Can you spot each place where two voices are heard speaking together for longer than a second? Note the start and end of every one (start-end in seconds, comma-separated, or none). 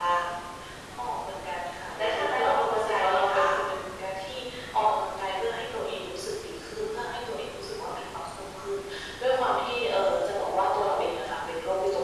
2.0-3.4